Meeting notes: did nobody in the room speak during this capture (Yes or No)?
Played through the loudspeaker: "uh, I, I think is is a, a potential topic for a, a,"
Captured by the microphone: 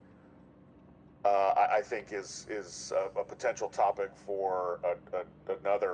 Yes